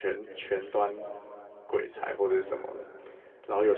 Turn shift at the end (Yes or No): No